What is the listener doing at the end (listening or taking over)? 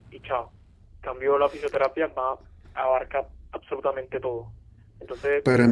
taking over